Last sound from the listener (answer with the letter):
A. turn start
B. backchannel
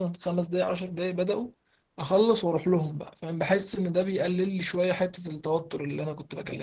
A